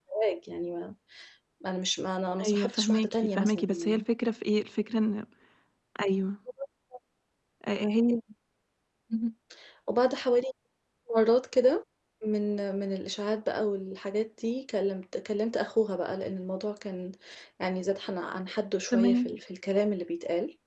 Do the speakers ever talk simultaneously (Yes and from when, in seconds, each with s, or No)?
Yes, from 2.4 s